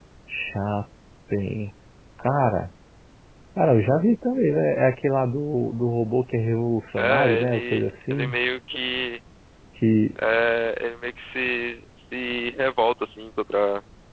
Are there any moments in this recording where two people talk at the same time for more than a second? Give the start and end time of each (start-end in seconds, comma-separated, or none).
7.0-8.4